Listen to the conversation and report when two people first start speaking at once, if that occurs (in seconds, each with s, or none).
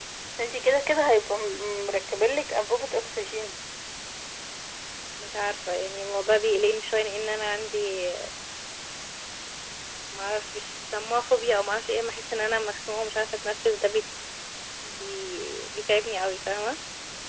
none